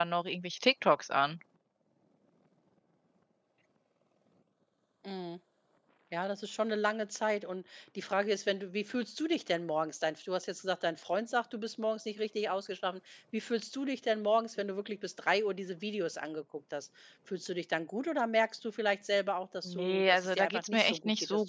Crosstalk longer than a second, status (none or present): present